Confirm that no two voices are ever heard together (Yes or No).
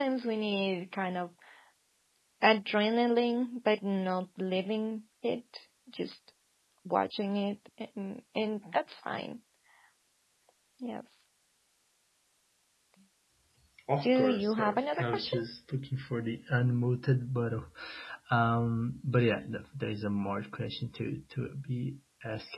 No